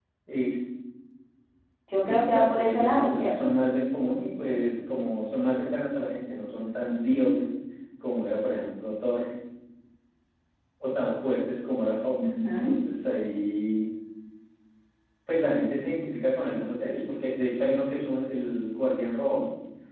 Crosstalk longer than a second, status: present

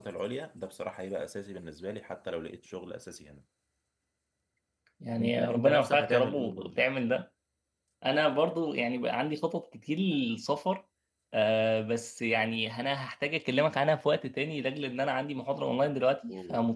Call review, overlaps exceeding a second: present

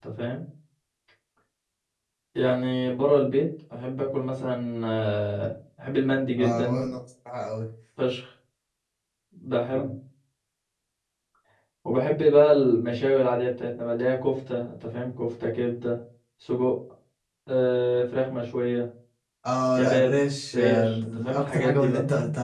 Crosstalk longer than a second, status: present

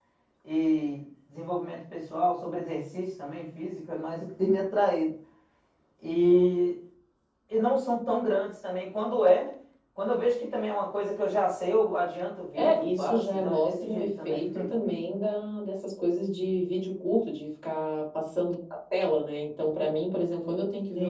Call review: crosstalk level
present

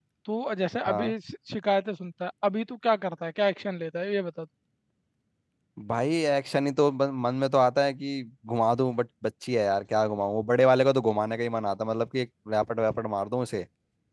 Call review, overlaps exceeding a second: none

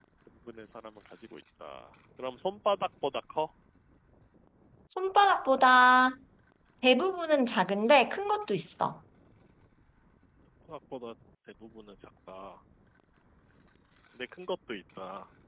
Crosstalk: none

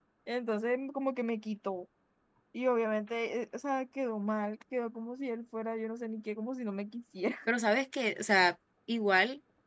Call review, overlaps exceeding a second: none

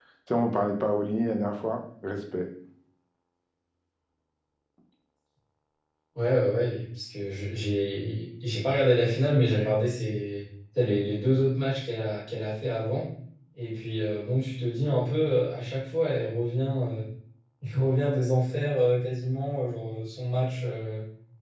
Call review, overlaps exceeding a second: none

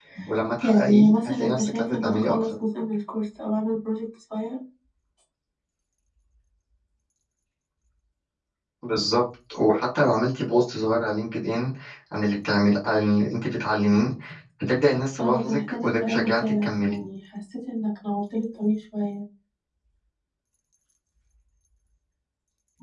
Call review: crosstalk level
present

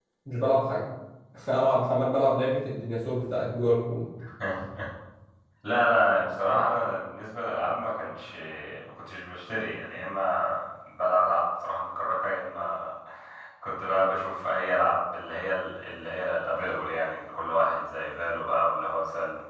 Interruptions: none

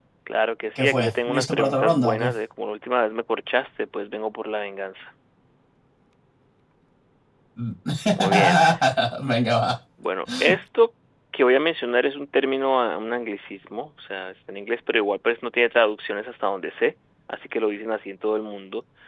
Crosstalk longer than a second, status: present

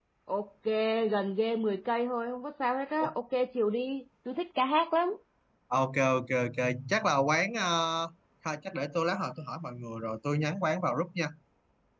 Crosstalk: none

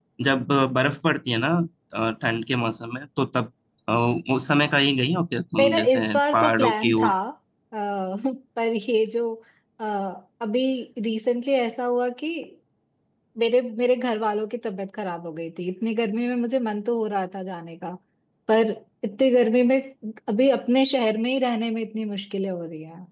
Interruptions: present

